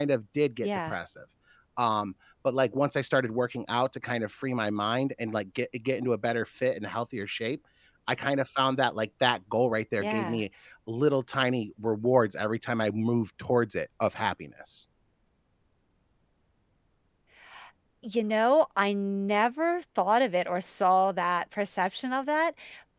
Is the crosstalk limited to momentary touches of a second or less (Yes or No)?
Yes